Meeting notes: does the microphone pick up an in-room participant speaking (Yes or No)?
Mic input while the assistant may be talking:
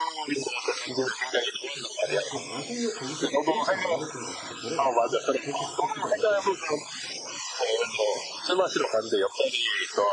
Yes